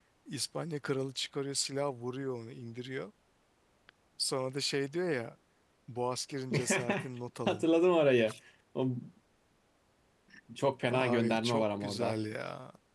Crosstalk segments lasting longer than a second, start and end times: 10.9-12.1

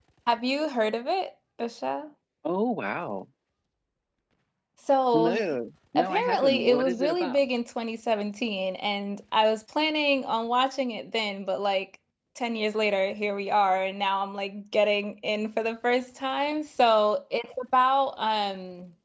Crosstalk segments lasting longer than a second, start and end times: 6.0-7.4

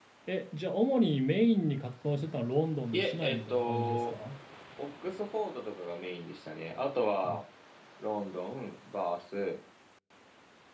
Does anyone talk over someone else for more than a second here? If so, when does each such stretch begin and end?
2.9-4.1

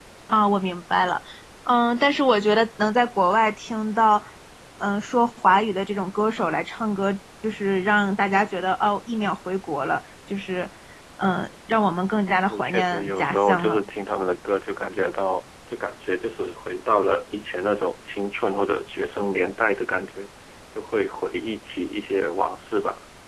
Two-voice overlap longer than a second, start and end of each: 12.5-13.9

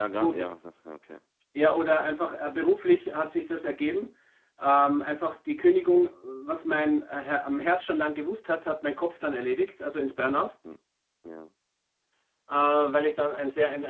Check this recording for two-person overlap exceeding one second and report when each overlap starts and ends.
none

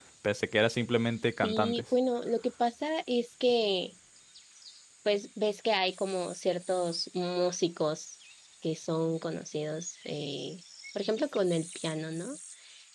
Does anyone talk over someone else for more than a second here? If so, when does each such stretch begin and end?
none

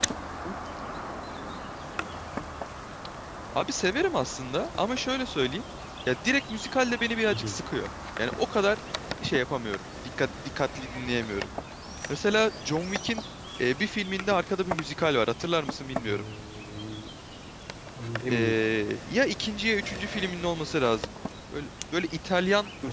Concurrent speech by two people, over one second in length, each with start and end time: none

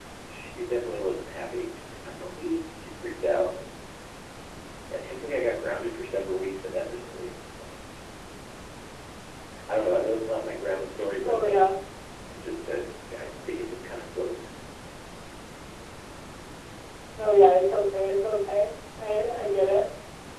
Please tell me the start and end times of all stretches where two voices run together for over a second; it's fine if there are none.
none

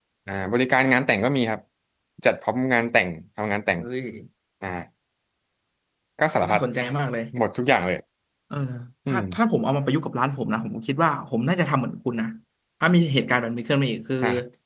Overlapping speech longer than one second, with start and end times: none

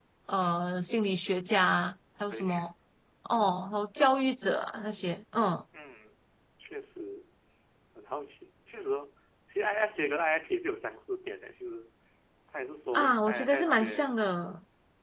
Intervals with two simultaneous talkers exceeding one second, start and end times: 12.9-14.2

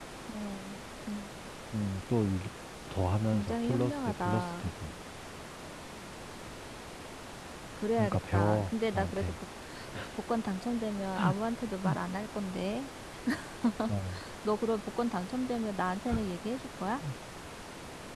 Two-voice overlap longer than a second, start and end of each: 3.3-4.7, 8.0-9.4

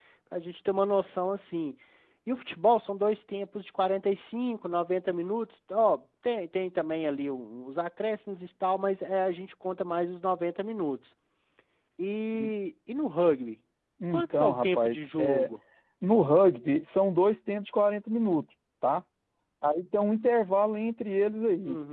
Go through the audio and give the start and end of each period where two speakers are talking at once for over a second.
14.1-15.5

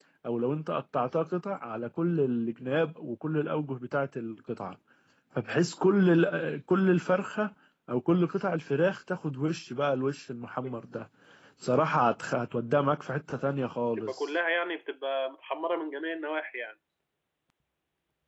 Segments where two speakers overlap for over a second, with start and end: none

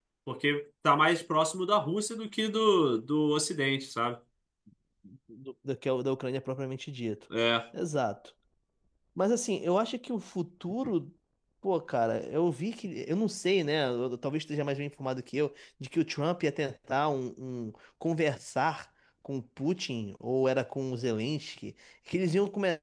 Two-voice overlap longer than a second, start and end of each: none

